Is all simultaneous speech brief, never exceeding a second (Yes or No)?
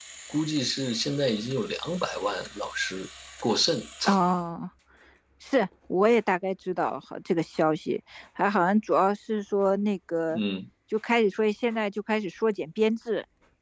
Yes